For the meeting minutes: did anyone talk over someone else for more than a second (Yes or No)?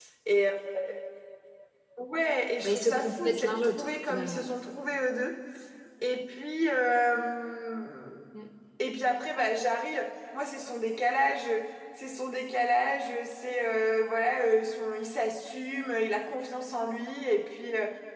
Yes